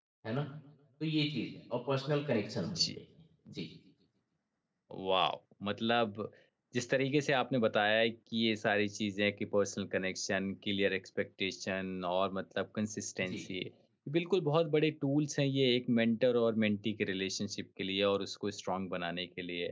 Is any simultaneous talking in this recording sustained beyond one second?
No

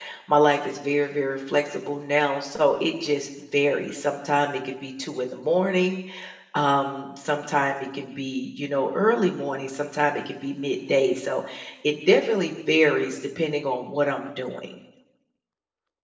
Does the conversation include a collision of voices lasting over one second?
No

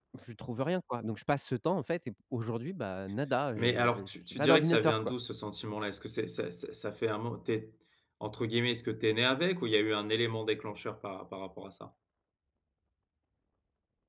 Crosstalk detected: Yes, from 3.6 s

